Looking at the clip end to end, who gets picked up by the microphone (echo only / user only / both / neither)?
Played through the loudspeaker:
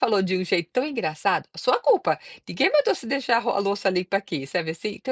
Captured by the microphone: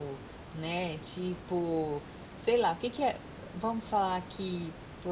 user only